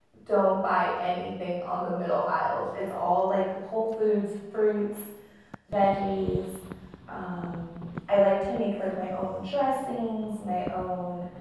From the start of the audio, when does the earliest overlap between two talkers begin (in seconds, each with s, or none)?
none